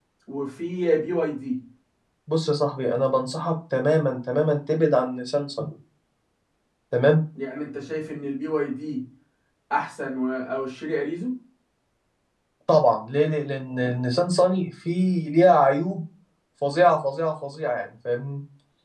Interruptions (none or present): none